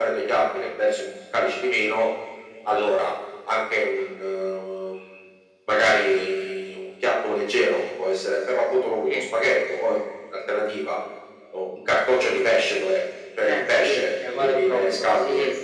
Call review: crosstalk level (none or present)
present